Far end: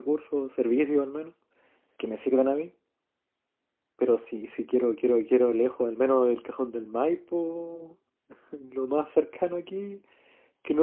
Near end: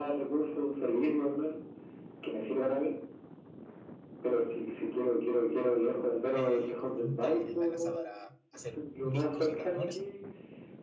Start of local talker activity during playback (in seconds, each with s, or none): 6.3 s